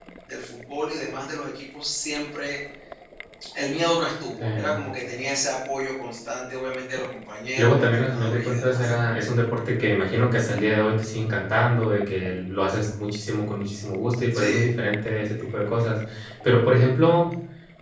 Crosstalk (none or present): present